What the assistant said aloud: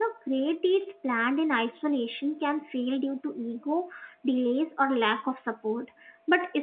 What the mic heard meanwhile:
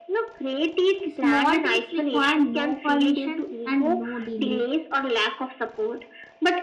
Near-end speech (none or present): present